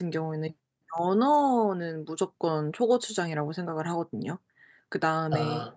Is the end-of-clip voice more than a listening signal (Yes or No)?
No